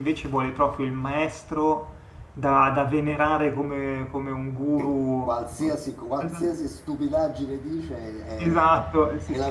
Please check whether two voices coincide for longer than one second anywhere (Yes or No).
No